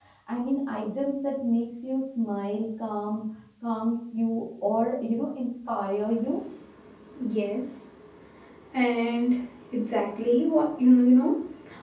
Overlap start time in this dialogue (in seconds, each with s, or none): none